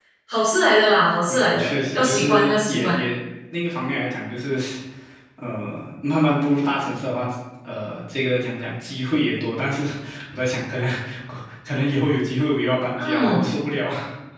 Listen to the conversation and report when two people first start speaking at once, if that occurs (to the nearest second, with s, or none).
1 s